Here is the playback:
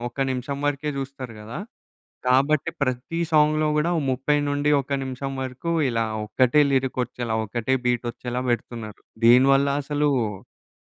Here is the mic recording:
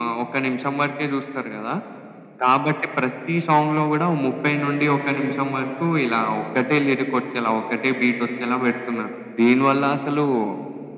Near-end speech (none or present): none